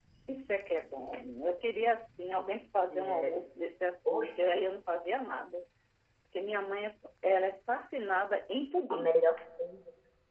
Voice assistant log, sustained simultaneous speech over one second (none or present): none